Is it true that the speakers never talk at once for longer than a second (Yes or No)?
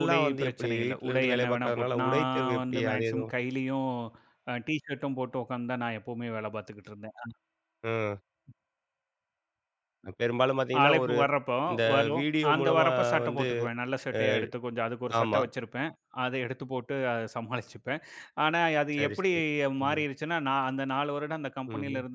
No